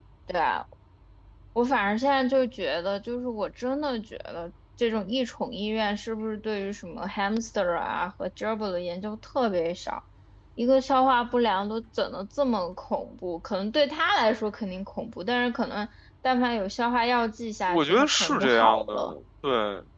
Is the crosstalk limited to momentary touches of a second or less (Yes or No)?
No